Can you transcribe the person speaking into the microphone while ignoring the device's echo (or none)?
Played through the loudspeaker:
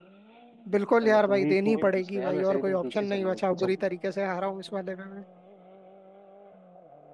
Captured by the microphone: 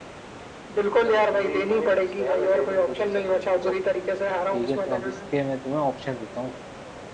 ठीक है तो अब इसके मैं तुम्हें ऑप्शन देता हूँ